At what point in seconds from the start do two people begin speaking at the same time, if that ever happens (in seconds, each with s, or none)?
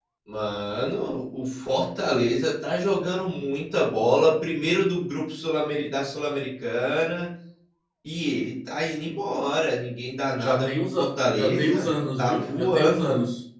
10.3 s